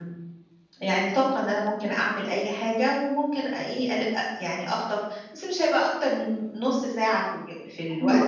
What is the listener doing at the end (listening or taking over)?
taking over